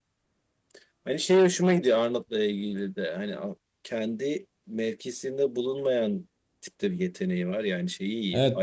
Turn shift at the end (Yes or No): Yes